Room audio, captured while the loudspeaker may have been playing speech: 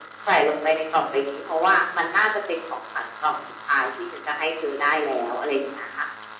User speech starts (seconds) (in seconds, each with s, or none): none